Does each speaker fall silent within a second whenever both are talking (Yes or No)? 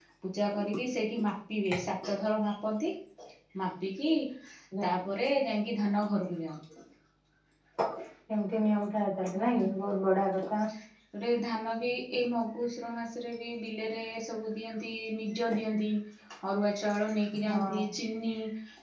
Yes